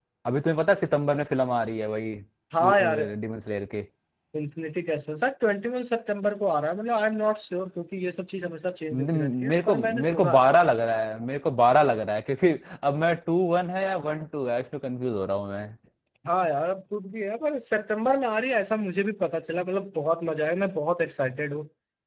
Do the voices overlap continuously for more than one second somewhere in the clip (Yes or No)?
Yes